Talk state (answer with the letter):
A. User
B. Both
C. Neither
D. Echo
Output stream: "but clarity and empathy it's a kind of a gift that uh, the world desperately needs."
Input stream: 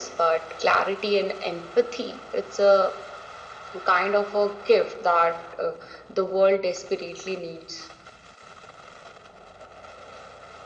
D